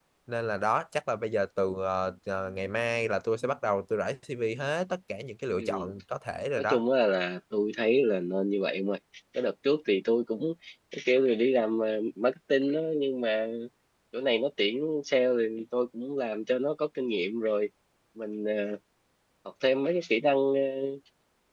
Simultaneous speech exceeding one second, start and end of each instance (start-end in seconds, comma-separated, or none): none